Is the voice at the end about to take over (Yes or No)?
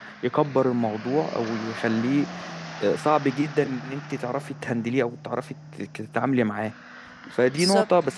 No